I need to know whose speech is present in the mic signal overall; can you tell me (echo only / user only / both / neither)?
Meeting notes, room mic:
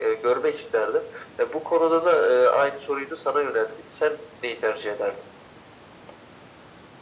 echo only